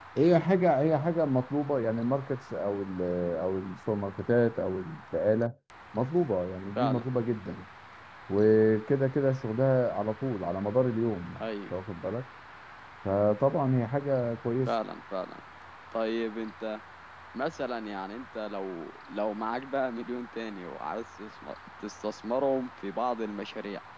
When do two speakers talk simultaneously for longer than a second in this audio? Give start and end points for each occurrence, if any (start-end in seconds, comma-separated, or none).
none